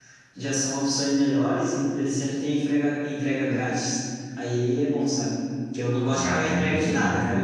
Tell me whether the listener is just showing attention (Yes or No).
Yes